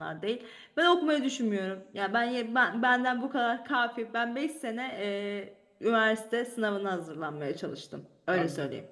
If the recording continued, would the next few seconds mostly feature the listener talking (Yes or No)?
Yes